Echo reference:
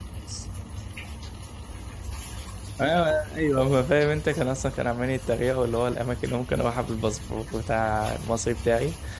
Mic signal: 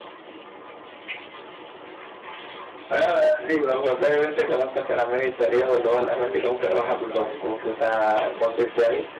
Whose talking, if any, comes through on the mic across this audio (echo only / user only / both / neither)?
both